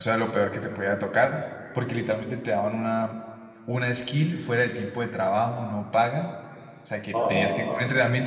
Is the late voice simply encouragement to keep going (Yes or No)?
Yes